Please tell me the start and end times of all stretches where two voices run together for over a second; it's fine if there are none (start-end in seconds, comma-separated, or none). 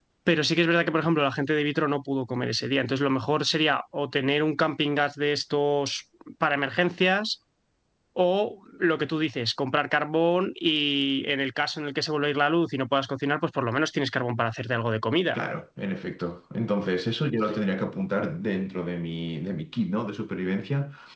none